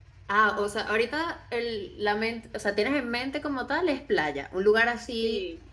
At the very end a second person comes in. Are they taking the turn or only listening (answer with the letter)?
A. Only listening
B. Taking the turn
B